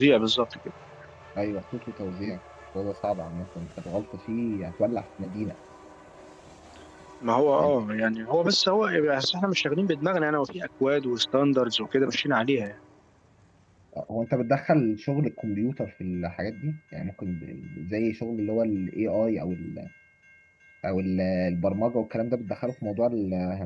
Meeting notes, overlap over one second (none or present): none